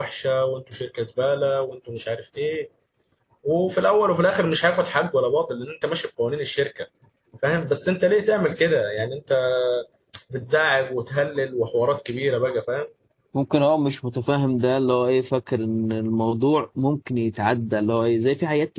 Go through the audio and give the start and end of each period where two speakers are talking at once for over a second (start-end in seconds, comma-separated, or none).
none